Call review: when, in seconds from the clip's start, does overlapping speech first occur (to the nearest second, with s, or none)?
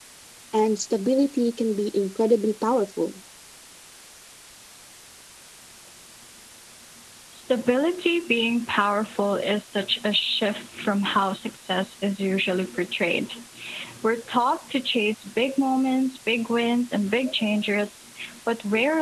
none